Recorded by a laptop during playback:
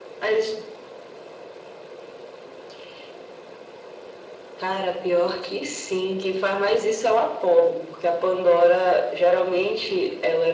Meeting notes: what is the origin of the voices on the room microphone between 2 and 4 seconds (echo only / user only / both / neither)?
neither